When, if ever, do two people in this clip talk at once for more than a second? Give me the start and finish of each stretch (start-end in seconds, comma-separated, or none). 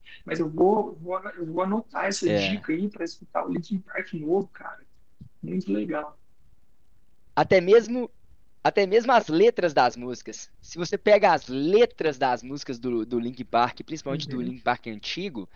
none